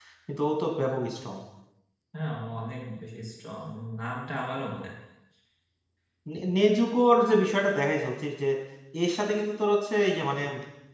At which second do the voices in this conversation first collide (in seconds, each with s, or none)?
none